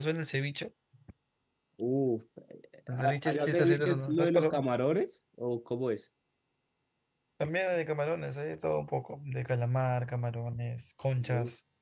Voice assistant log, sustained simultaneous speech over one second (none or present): present